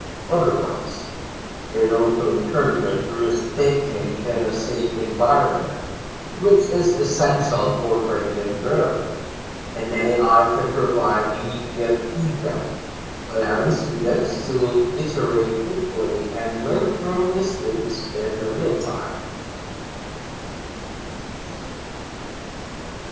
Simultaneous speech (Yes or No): No